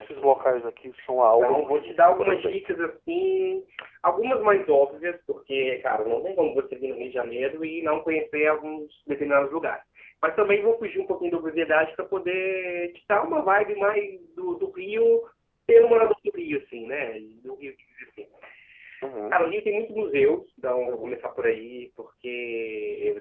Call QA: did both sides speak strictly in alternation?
No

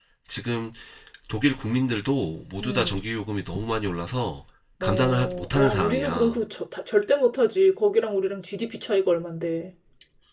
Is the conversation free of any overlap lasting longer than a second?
No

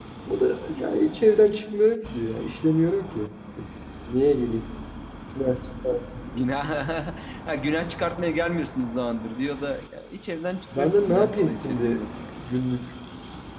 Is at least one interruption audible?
Yes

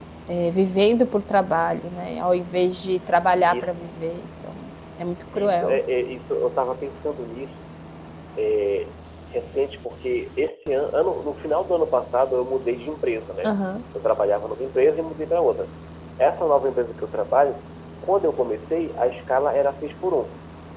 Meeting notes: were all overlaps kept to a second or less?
Yes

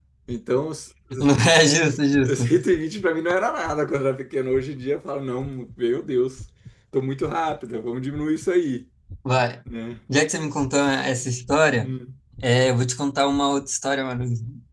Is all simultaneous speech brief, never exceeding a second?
Yes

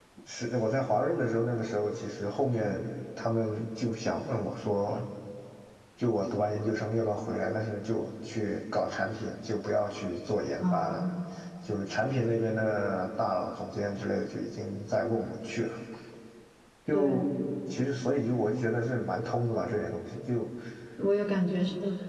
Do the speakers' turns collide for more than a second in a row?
No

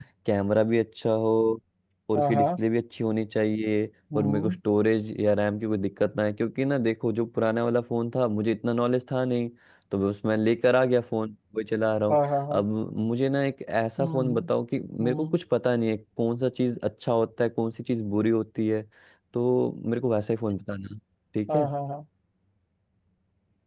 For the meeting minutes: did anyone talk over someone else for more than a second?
No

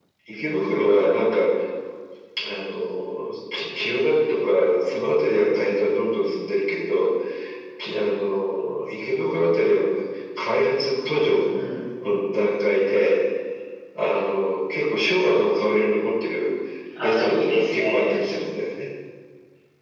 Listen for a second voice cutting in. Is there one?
Yes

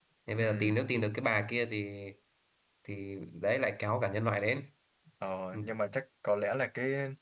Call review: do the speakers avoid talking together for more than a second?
Yes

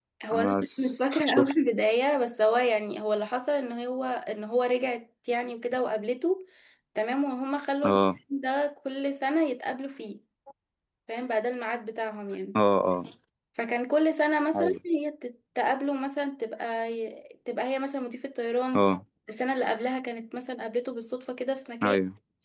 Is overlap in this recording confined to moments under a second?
No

